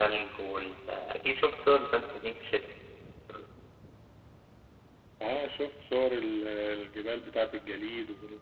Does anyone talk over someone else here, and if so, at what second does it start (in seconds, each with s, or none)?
none